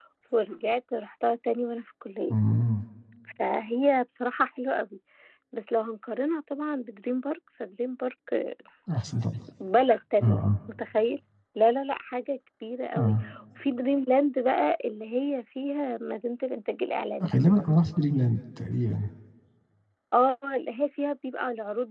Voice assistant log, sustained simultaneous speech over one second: none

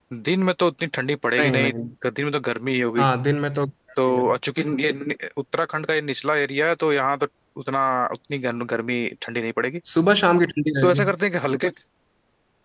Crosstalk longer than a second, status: none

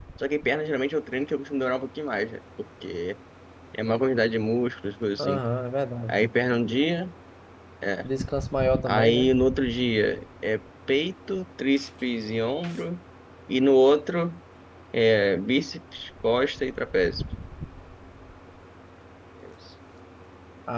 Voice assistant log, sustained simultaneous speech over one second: none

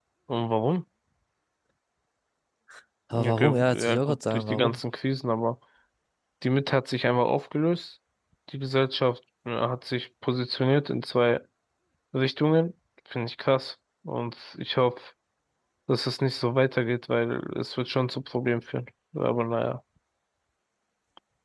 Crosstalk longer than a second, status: present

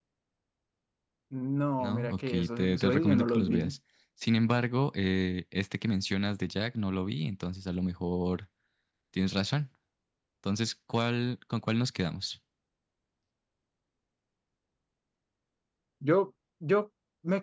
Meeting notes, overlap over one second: present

